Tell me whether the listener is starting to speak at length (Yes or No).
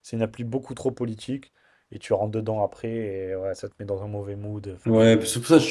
Yes